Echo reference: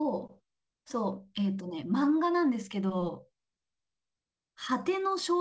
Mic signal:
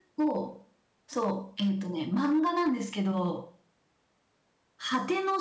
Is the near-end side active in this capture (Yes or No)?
No